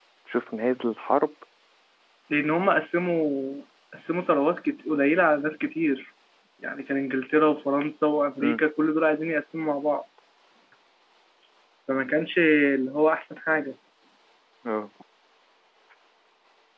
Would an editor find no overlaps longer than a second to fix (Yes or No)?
Yes